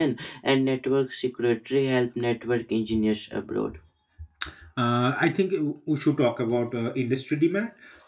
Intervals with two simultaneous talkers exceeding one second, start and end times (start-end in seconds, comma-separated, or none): none